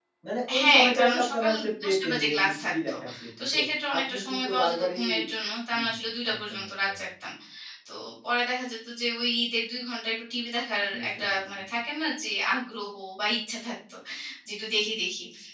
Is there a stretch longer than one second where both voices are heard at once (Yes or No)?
Yes